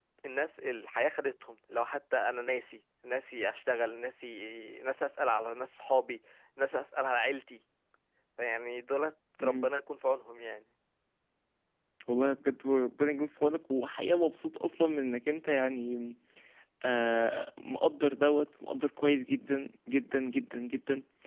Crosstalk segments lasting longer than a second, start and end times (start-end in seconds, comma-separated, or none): none